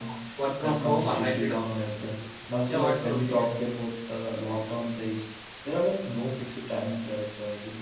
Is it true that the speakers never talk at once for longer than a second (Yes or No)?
No